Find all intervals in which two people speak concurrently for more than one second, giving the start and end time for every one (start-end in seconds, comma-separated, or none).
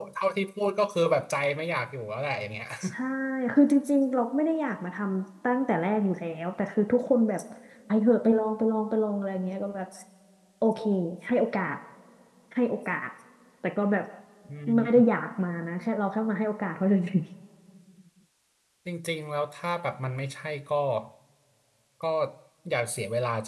none